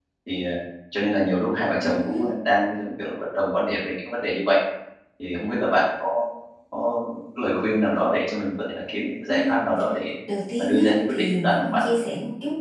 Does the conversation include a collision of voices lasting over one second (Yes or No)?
Yes